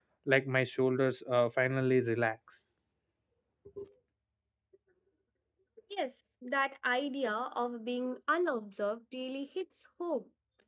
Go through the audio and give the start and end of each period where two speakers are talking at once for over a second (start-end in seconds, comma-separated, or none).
none